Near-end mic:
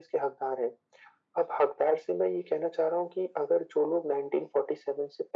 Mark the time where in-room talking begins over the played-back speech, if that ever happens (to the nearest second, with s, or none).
none